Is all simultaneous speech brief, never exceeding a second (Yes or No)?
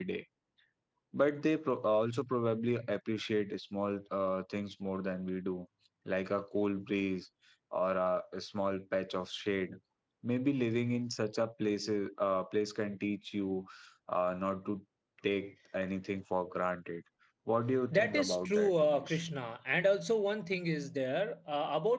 No